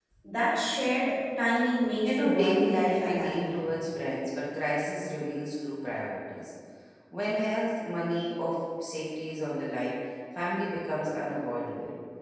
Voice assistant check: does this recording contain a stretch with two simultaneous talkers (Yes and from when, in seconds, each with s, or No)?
Yes, from 2.0 s